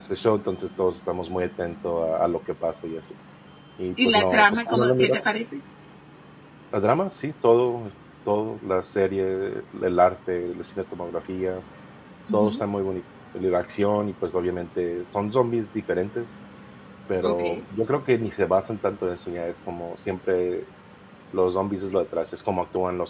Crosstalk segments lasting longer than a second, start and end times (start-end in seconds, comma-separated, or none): 4.0-5.3